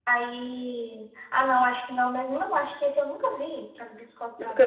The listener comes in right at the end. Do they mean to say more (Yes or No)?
Yes